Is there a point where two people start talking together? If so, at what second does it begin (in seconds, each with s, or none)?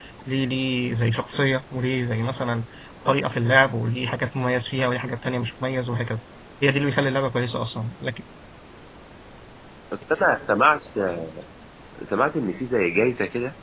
none